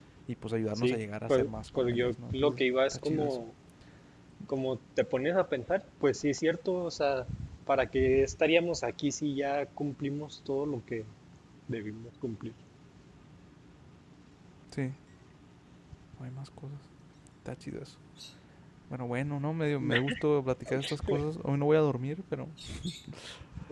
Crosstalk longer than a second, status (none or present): present